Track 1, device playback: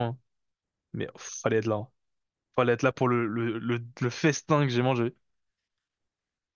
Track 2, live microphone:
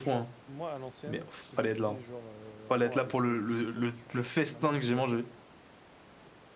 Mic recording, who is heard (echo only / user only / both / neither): both